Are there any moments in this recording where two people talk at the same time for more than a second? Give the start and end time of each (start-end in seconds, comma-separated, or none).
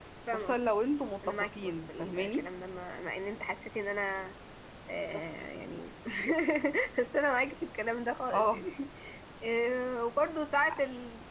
1.3-2.5